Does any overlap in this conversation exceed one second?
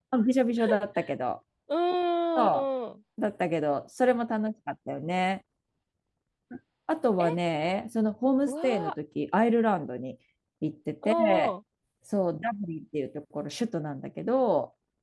No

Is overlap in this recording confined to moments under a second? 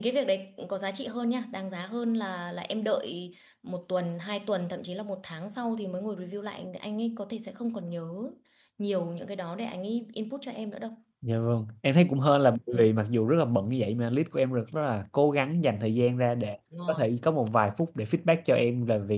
Yes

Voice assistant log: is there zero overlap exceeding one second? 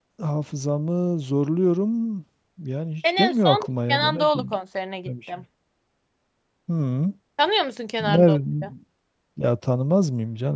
No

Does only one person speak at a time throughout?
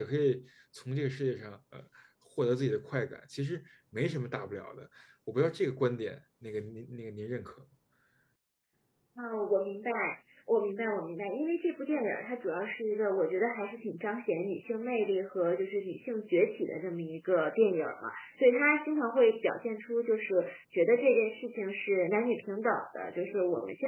Yes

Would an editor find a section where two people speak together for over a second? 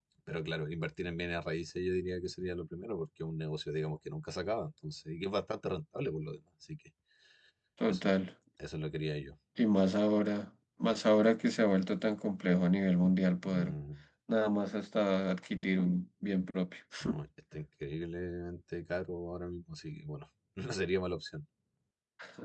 No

